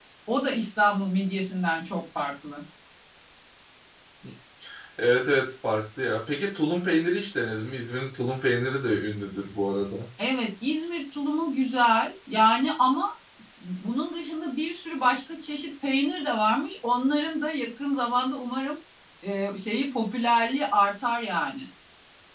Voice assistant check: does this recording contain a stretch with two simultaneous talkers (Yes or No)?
No